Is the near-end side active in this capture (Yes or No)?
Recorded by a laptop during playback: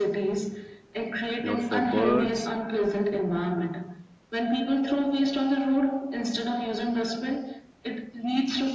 Yes